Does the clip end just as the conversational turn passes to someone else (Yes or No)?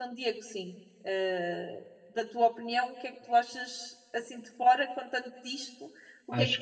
Yes